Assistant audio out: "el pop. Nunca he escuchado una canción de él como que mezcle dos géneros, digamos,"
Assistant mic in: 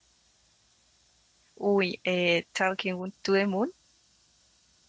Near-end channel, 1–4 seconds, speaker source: user only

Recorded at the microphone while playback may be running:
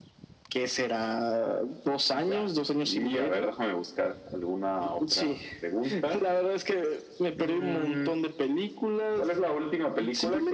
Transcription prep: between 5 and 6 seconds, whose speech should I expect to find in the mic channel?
echo only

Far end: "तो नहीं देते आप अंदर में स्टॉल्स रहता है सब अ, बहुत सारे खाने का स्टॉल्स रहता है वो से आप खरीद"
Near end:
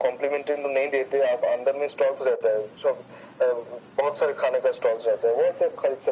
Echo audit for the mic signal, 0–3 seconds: echo only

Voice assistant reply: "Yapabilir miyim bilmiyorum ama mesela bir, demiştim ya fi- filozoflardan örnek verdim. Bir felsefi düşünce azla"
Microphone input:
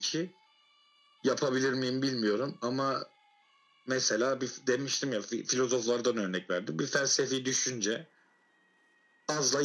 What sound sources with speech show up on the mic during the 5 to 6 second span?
echo only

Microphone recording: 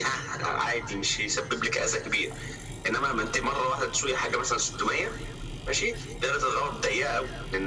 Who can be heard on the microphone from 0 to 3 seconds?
echo only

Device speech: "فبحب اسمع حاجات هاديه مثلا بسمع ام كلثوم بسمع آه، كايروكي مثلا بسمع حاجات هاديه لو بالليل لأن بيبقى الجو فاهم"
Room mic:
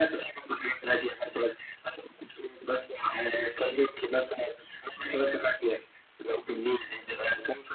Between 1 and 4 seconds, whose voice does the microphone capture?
echo only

